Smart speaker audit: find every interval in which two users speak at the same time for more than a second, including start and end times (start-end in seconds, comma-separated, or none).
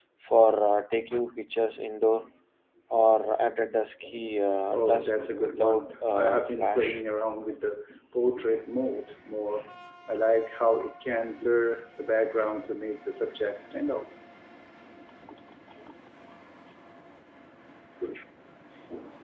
4.7-7.0